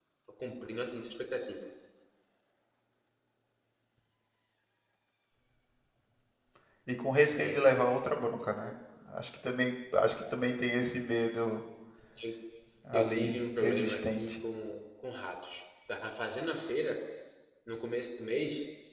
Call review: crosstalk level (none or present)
present